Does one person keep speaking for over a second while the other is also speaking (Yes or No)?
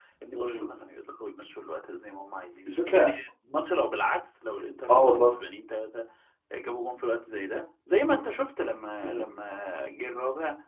No